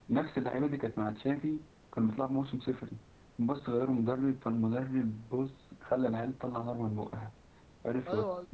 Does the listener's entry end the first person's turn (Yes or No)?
Yes